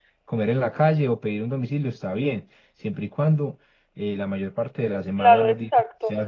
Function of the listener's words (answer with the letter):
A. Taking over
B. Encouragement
A